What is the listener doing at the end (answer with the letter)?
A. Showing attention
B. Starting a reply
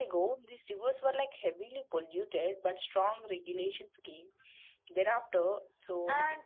A